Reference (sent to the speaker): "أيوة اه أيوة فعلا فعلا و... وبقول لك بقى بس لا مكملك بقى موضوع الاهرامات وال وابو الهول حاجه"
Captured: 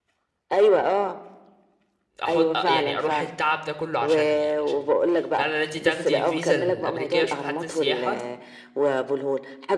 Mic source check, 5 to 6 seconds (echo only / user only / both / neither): both